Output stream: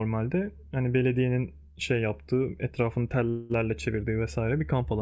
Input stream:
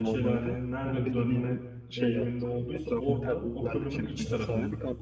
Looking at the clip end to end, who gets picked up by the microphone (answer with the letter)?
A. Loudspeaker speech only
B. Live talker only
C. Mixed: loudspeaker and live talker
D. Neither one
C